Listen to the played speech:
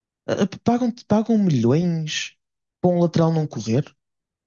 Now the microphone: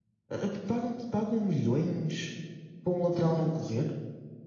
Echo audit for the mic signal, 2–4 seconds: echo only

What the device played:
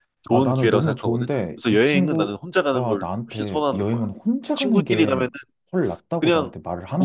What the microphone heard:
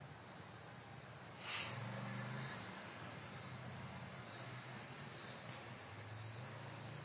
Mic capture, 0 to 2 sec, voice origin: neither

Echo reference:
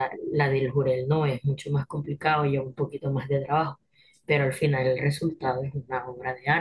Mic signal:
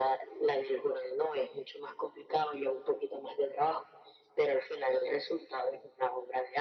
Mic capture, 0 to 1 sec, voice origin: echo only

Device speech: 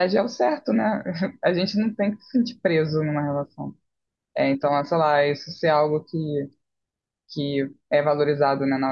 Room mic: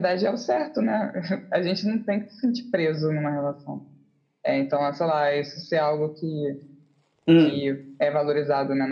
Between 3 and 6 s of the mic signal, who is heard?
echo only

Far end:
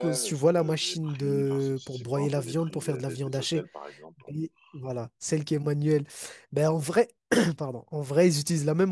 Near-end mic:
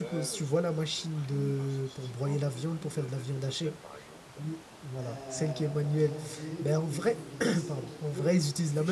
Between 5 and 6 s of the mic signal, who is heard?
both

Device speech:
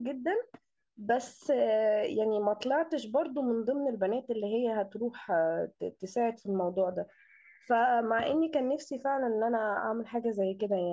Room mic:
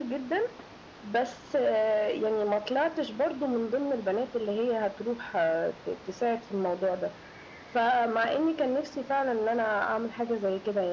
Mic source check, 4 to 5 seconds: echo only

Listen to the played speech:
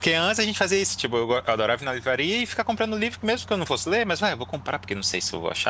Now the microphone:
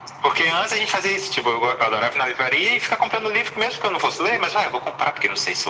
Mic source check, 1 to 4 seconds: echo only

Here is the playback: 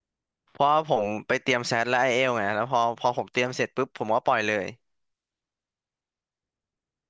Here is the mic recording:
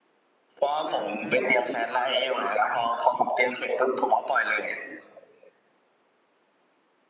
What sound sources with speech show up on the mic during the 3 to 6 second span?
echo only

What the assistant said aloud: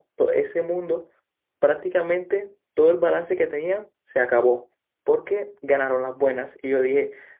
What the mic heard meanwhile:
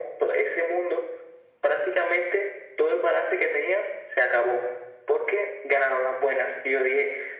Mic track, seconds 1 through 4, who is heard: echo only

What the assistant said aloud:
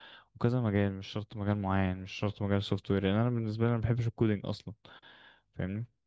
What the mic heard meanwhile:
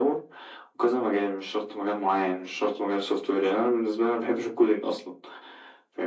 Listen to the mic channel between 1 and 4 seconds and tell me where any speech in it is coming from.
echo only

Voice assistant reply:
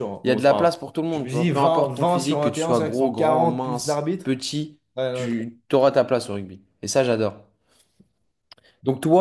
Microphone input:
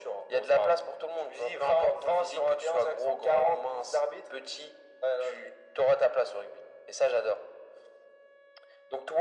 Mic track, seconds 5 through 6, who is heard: echo only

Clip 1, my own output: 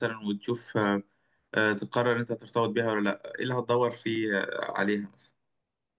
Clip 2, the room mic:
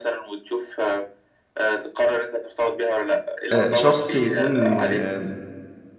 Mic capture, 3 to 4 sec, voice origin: both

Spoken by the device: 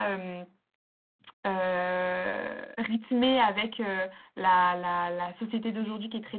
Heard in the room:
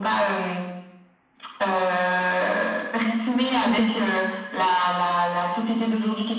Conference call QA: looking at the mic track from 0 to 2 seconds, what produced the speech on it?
echo only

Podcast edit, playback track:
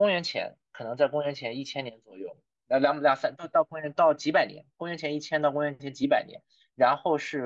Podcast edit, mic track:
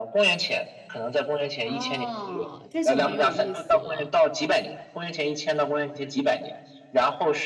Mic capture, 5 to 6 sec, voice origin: echo only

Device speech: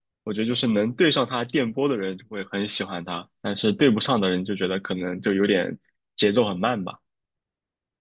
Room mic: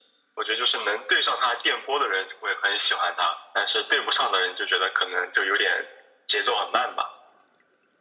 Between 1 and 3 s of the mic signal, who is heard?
echo only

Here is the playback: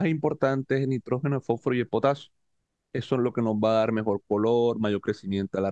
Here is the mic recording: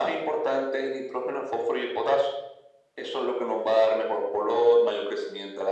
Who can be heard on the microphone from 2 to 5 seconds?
echo only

